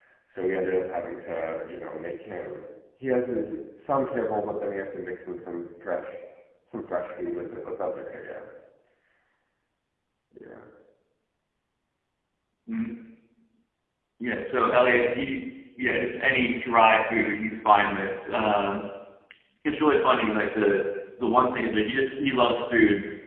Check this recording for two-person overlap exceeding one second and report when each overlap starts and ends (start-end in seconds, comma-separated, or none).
none